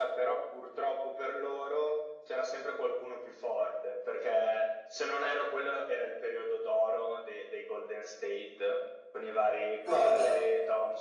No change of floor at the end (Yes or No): Yes